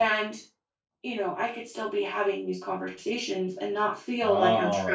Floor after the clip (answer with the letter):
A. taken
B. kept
A